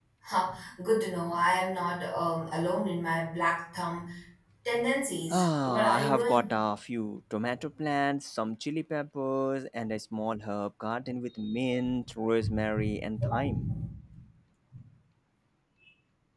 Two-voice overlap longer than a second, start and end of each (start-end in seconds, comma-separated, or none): 5.3-6.5